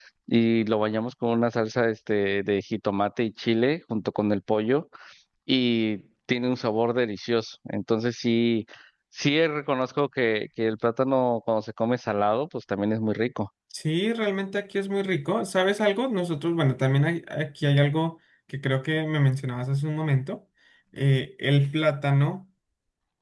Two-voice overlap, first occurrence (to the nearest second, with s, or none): none